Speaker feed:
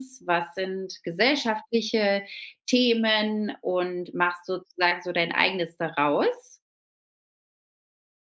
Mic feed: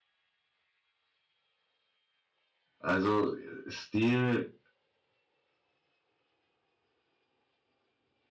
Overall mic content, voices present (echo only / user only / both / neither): user only